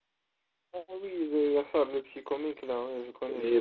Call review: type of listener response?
taking over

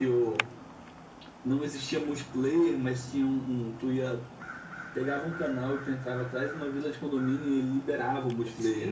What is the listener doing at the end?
taking over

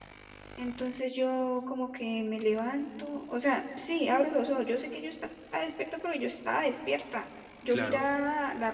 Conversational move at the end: listening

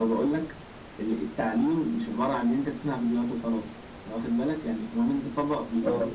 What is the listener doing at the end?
listening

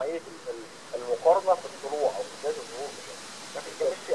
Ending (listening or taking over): listening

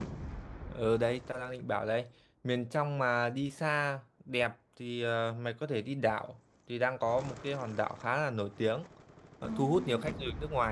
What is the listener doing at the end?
listening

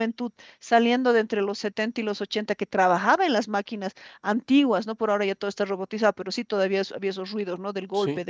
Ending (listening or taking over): listening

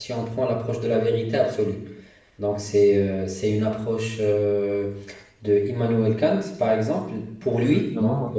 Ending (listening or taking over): listening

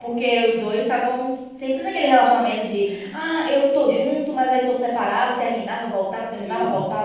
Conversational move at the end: taking over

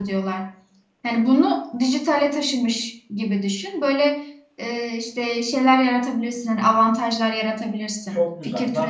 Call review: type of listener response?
taking over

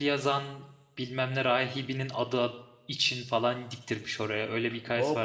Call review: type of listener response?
taking over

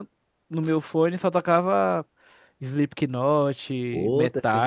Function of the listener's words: taking over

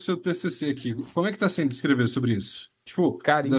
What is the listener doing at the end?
listening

